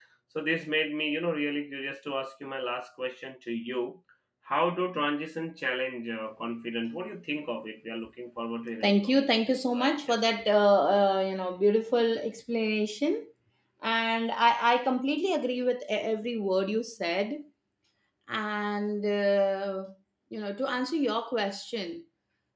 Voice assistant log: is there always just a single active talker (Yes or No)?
No